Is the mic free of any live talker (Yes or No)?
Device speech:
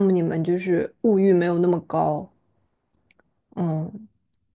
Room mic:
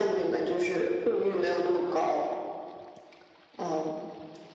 Yes